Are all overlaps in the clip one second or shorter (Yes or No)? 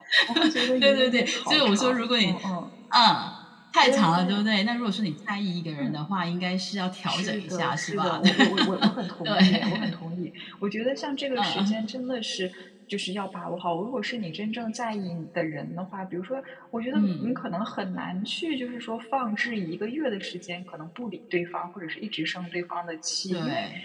No